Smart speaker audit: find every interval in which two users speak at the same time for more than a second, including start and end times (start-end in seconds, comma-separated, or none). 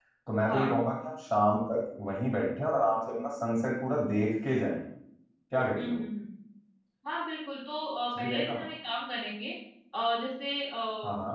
none